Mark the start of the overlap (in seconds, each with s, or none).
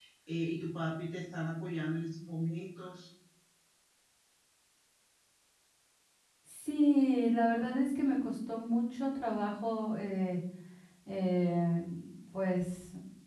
none